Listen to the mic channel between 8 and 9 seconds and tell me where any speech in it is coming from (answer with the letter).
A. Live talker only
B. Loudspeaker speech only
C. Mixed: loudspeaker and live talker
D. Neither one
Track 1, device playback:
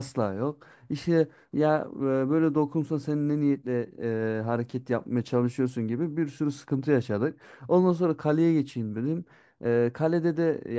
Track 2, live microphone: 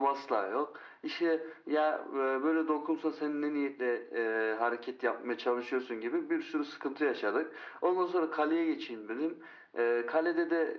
B